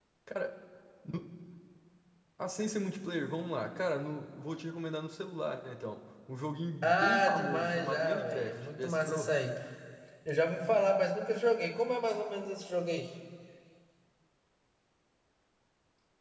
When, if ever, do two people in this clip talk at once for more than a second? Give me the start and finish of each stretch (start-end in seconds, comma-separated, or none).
6.8-9.3